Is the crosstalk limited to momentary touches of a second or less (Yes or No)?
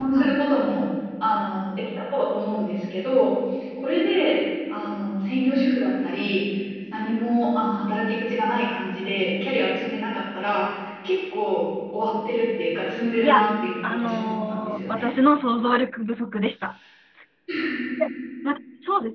No